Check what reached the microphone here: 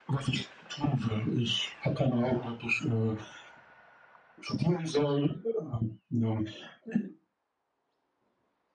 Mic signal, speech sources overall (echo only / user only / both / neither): echo only